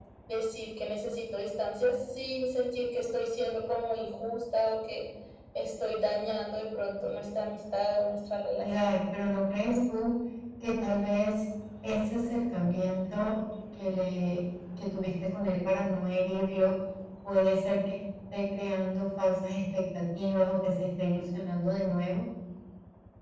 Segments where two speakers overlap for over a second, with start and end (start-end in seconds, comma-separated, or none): none